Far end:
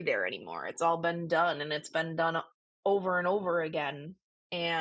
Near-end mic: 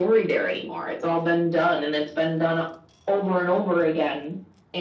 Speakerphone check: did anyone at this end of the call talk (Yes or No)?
No